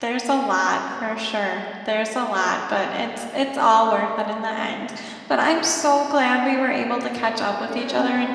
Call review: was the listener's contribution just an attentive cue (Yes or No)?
Yes